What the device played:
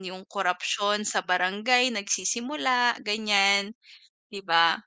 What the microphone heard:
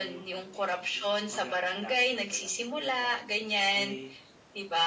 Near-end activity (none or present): present